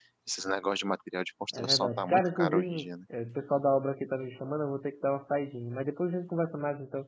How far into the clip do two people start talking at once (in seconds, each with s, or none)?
1.5 s